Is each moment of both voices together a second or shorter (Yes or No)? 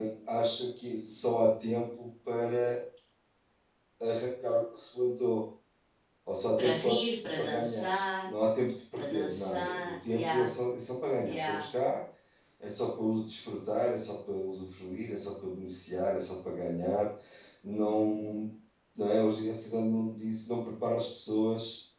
No